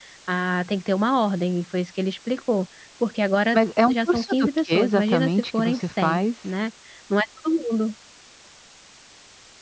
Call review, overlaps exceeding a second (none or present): present